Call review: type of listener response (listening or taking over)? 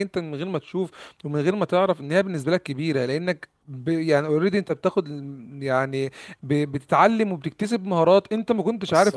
listening